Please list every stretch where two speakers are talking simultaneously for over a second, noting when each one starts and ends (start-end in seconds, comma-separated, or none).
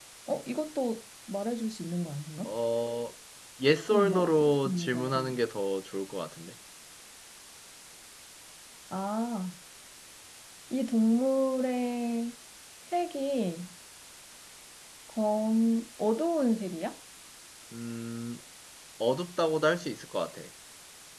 3.9-5.4